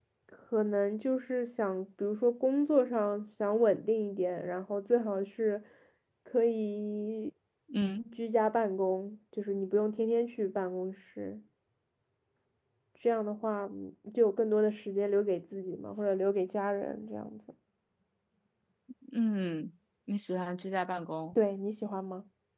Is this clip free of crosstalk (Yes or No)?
Yes